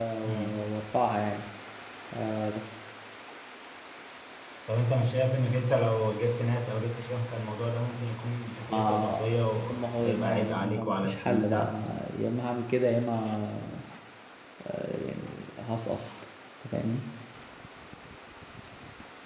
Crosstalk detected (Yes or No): Yes